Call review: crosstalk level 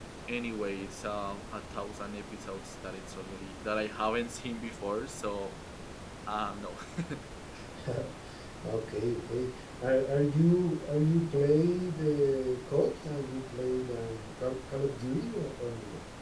none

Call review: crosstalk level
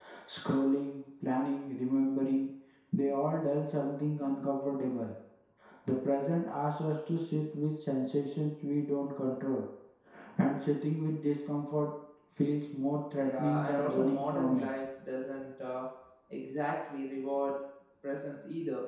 present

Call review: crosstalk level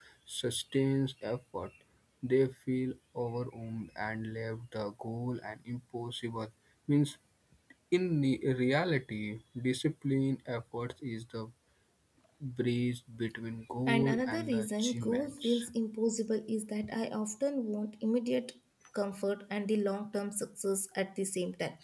present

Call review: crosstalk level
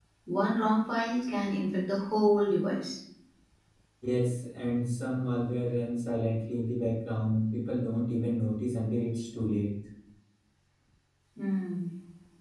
none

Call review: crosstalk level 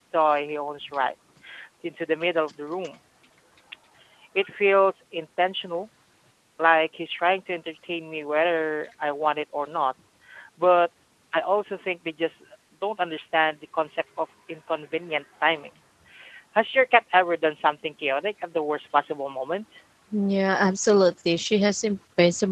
none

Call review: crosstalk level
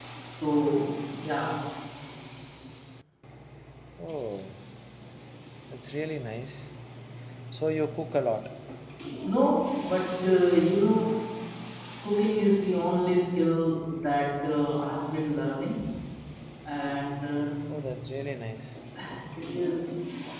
none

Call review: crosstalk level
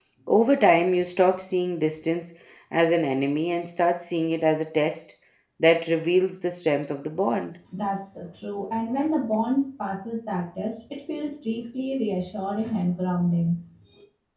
none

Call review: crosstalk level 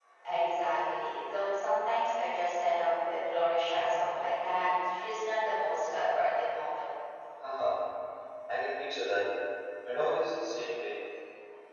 none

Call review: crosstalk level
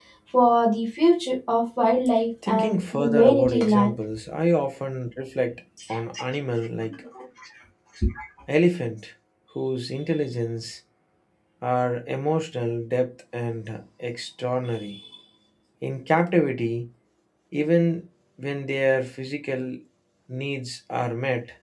present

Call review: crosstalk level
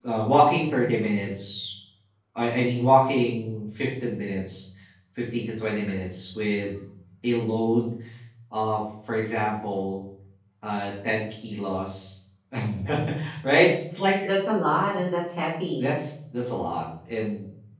none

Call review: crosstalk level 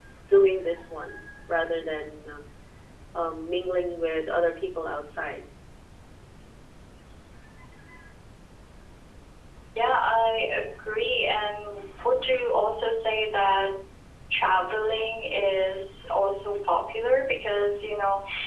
none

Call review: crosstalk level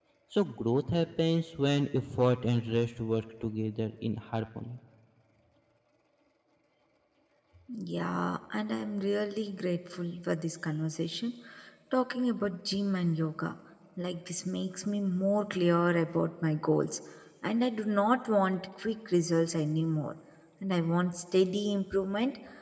none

